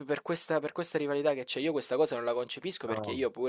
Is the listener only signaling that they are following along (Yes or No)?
Yes